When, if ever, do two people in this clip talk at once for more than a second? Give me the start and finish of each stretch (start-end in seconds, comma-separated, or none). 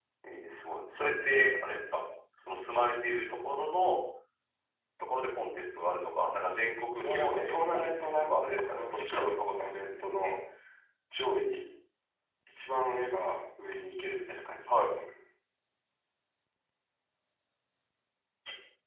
7.0-9.4